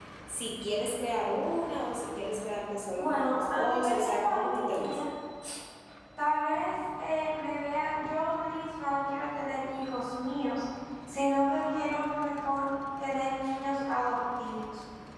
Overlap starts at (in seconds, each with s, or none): 3.0 s